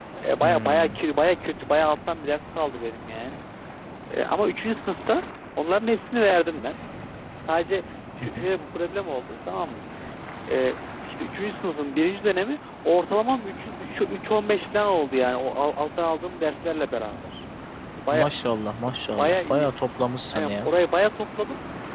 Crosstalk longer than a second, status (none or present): none